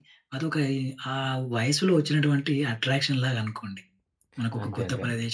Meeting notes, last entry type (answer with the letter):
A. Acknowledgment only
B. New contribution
A